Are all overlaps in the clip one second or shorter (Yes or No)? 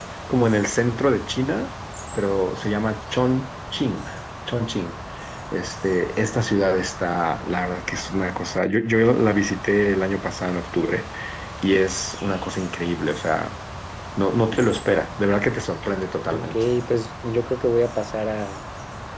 Yes